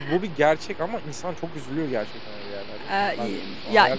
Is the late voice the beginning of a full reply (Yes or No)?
Yes